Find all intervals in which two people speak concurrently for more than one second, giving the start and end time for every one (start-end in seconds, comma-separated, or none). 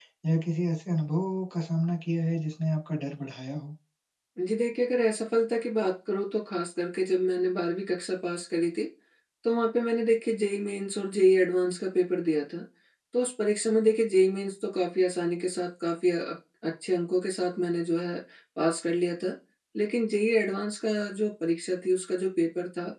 none